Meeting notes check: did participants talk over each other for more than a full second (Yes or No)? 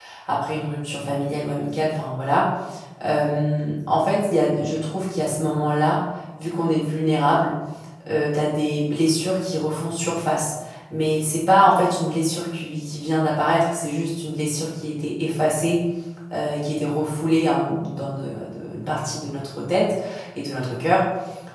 No